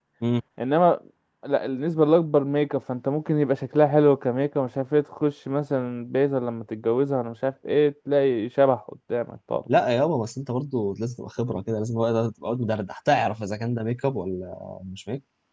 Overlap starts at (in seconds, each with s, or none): none